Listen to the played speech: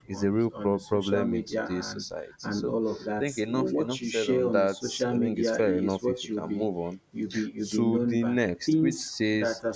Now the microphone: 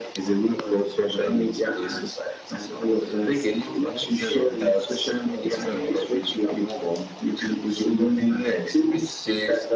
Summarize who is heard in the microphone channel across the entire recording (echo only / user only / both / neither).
echo only